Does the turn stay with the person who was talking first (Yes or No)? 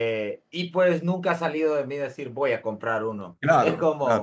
Yes